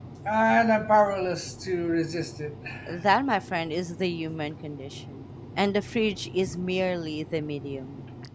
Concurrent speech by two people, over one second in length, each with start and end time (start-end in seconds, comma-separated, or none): none